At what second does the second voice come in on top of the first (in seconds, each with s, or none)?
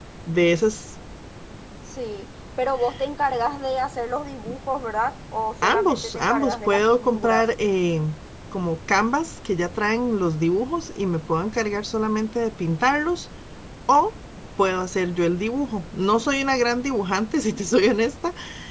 5.6 s